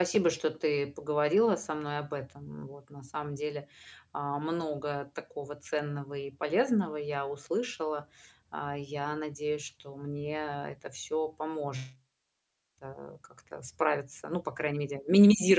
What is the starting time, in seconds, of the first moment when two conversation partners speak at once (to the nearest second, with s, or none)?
none